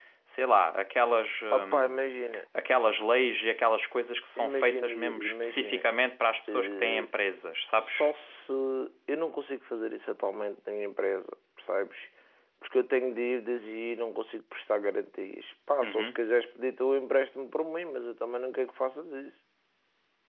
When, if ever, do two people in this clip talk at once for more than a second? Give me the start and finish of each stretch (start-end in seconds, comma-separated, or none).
4.4-5.8